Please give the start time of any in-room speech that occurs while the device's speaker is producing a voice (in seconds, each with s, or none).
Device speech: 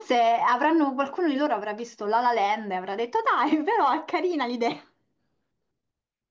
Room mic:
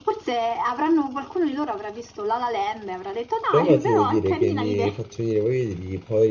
3.5 s